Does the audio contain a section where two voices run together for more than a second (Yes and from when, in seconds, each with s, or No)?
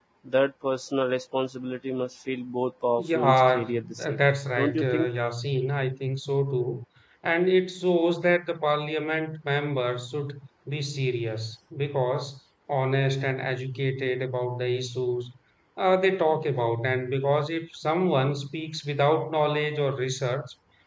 Yes, from 3.0 s